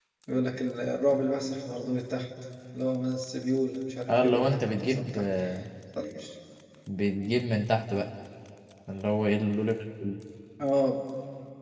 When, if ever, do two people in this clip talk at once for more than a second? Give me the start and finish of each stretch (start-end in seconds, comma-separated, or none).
4.1-5.3